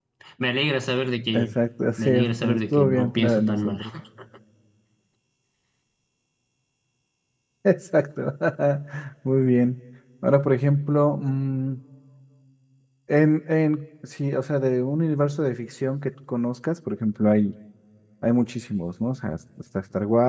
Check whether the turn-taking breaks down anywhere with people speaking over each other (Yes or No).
Yes